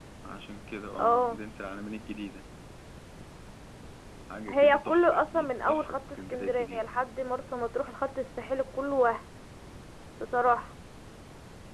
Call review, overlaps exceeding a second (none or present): present